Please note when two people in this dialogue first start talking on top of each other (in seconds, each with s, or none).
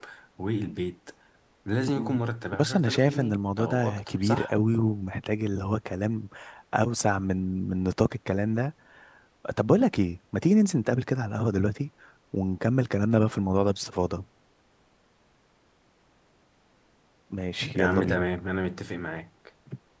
2.0 s